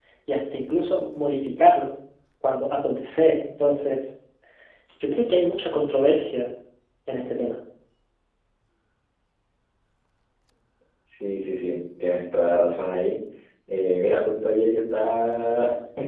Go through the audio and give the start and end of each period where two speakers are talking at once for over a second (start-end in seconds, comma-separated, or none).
none